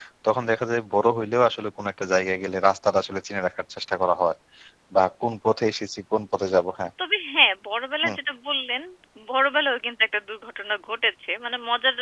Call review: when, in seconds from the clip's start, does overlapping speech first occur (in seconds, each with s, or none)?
none